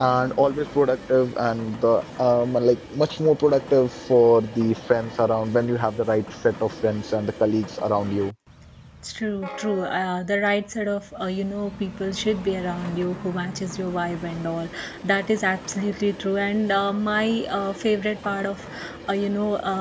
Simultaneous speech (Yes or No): No